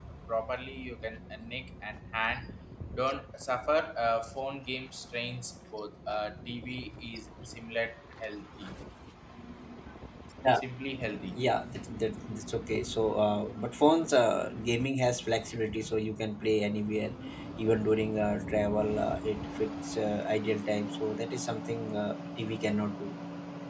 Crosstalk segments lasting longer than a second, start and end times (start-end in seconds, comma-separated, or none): none